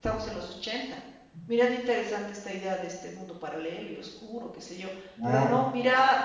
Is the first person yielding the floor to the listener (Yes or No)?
No